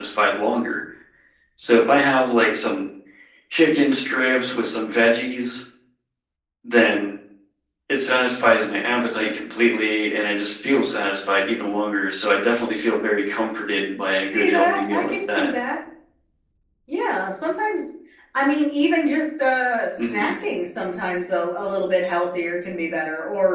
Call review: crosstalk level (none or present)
present